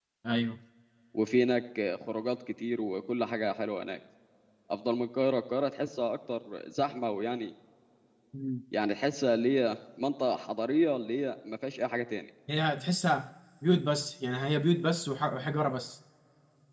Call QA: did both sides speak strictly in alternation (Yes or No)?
Yes